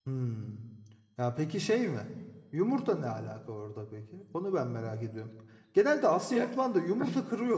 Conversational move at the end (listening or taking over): listening